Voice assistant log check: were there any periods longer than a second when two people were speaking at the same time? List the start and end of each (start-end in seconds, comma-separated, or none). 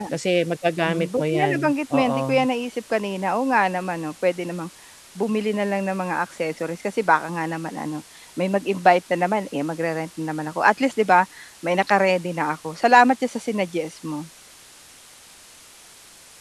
0.8-2.4